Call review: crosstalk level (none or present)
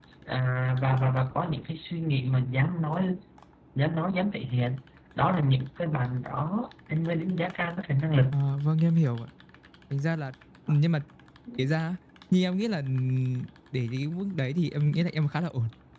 none